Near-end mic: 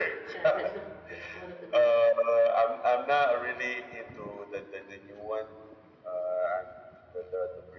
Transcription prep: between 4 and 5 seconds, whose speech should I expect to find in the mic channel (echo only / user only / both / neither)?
echo only